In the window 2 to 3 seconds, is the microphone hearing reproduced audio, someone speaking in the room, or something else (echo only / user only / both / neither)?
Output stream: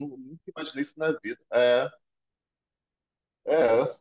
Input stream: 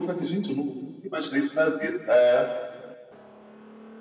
echo only